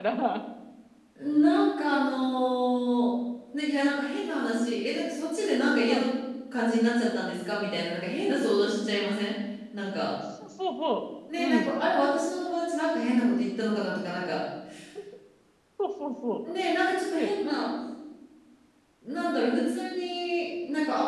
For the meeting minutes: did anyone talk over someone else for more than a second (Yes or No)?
No